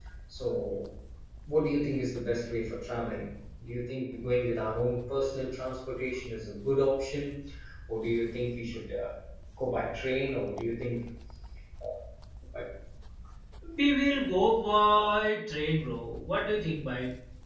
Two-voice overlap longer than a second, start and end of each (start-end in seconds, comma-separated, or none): none